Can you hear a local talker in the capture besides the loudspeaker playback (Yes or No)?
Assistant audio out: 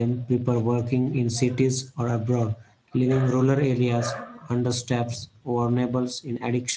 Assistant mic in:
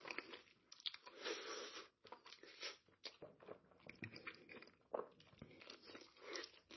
No